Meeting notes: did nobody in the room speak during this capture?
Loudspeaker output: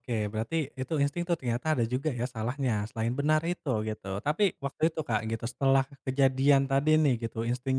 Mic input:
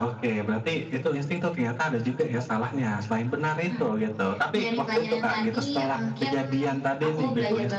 No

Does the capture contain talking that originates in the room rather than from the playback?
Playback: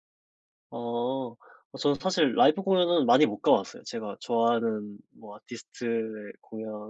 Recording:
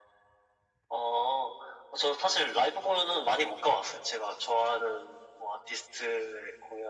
No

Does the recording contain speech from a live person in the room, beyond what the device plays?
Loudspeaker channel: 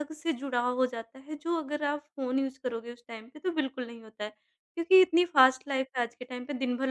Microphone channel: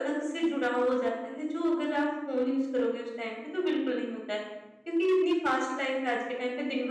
No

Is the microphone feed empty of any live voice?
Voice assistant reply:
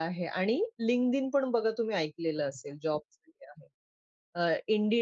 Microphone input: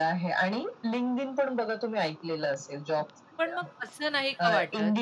No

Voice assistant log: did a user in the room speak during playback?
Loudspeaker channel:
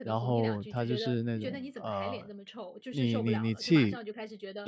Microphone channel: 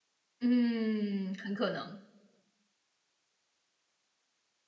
Yes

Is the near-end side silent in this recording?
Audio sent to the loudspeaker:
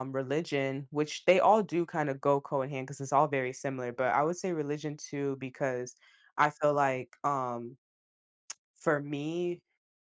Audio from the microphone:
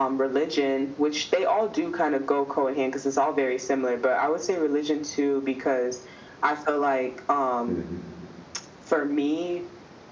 No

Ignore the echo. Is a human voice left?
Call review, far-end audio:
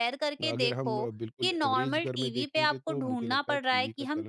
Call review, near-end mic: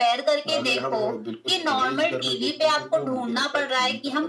No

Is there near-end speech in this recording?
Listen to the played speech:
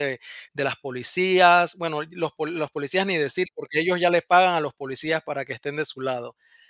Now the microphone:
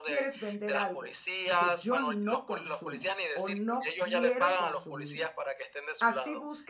Yes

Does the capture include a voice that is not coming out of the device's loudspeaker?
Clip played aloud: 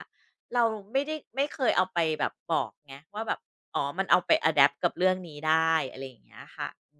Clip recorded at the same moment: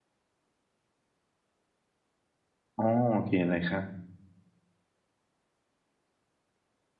Yes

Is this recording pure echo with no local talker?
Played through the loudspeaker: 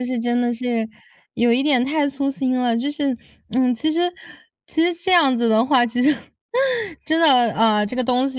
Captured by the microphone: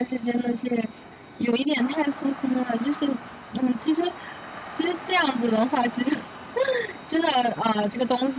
Yes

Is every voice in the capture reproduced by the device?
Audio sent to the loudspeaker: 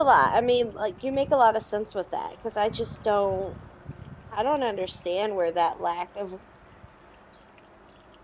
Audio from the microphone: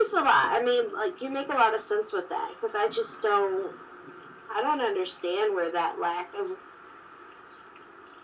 Yes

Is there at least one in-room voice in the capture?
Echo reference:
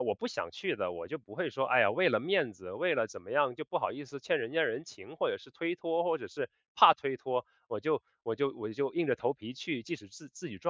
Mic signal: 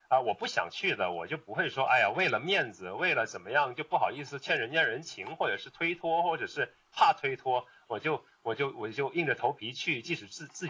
No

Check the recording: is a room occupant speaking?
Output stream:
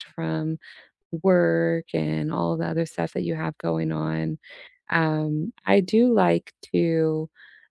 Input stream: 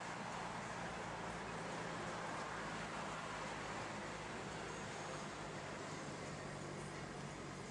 No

